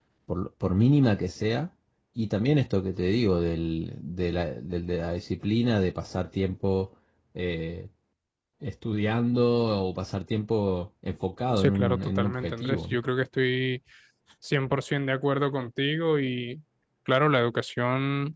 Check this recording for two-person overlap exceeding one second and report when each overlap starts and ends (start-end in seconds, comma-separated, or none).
11.6-13.0